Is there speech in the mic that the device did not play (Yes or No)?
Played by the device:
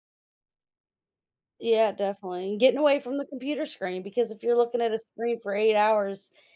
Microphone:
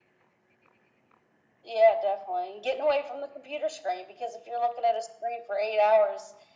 No